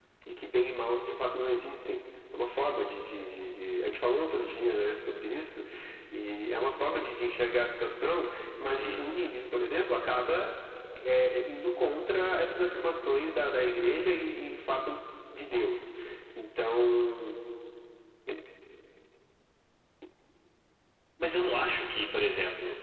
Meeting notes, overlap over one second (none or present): none